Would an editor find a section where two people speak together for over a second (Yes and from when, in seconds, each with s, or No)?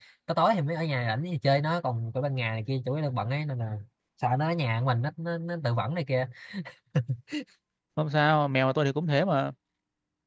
No